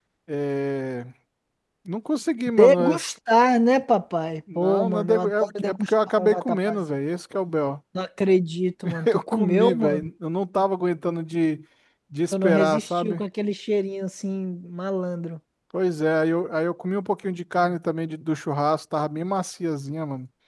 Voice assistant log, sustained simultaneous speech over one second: present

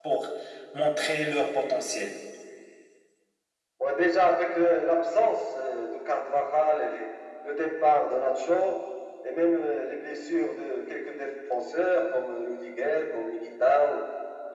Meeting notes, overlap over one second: none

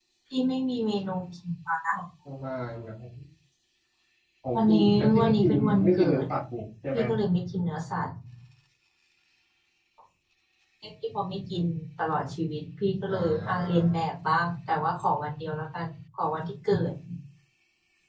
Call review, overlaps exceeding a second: present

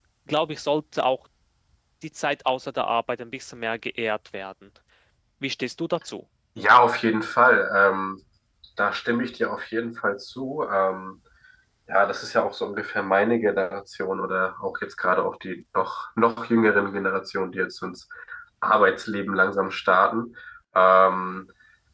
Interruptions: none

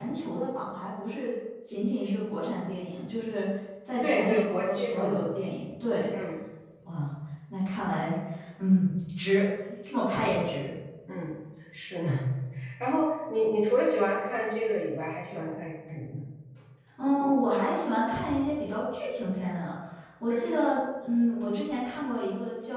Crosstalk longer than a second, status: present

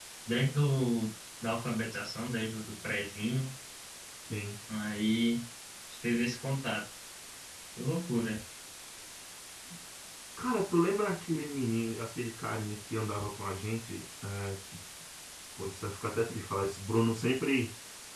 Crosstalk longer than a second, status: none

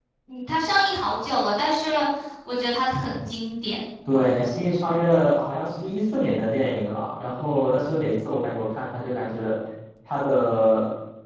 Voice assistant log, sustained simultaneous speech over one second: none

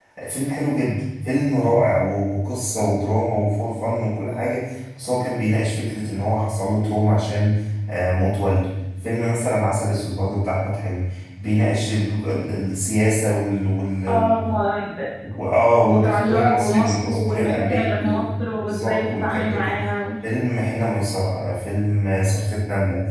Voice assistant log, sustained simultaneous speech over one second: present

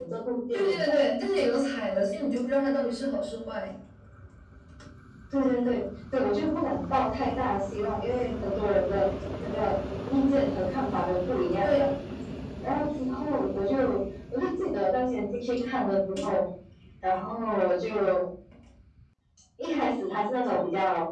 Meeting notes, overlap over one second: none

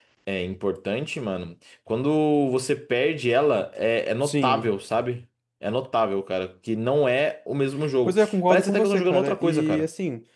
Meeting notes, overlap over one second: present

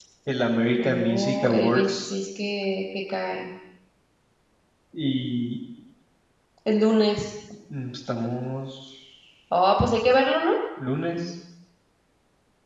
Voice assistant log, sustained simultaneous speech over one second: present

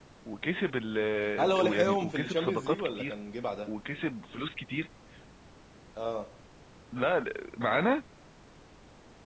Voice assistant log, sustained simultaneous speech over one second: present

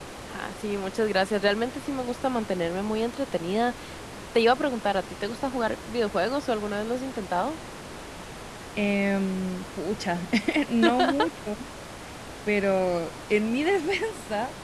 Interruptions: none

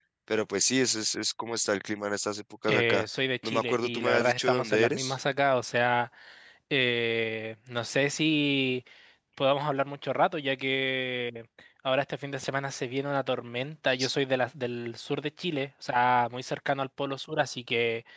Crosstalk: present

